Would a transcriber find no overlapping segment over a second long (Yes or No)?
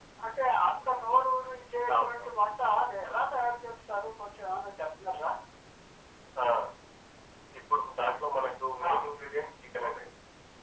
Yes